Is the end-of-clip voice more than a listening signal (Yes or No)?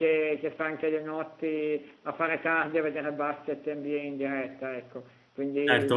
Yes